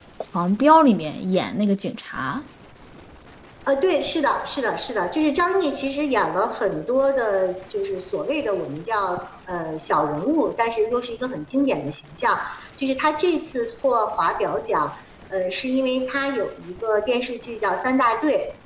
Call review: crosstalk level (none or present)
none